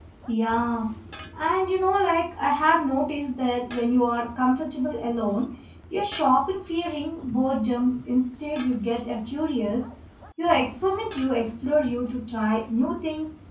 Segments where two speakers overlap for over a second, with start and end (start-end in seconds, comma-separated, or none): none